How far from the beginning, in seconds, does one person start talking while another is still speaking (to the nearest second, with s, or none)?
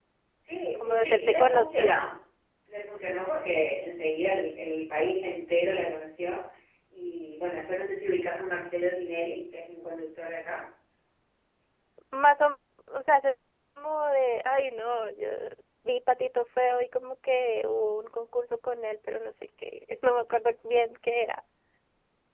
1 s